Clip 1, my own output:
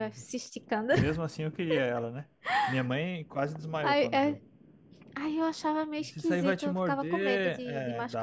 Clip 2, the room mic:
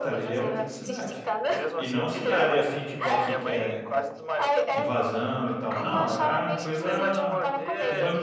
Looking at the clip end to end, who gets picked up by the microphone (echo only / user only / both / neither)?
both